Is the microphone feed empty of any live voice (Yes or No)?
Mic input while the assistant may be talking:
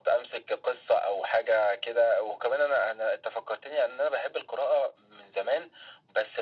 Yes